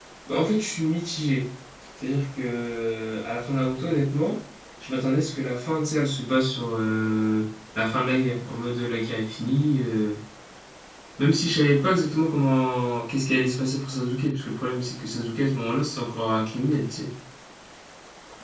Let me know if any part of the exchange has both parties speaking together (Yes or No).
No